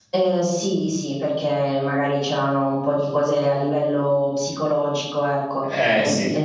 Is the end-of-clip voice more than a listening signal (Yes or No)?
No